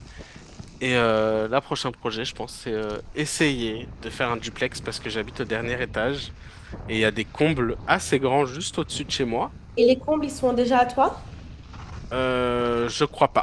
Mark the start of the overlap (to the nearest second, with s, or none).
none